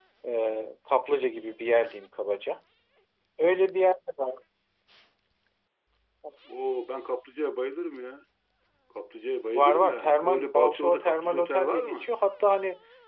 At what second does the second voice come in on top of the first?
9.5 s

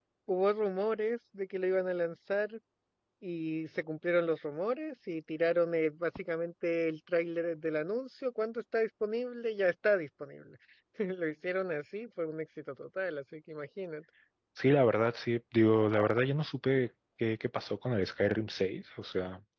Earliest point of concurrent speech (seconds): none

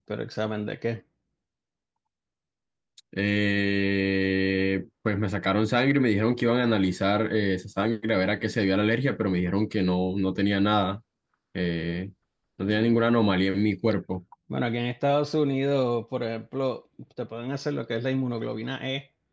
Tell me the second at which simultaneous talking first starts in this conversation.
none

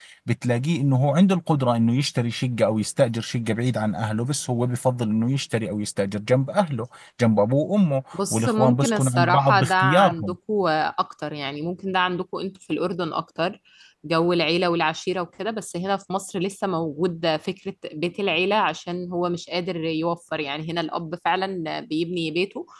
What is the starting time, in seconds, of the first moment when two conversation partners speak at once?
8.1 s

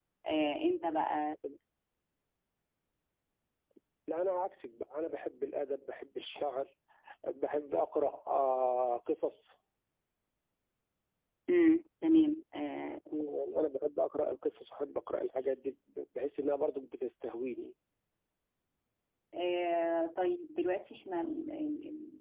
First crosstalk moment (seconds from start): none

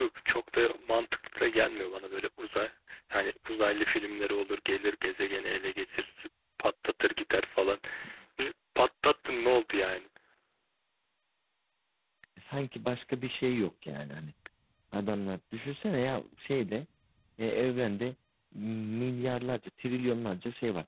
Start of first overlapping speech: none

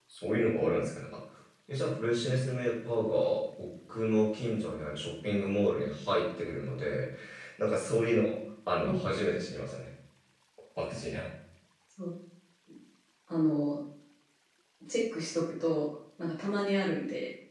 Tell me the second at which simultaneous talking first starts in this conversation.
none

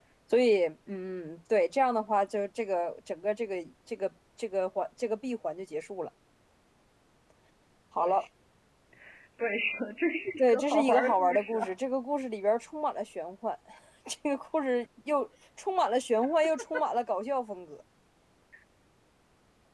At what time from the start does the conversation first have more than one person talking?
10.4 s

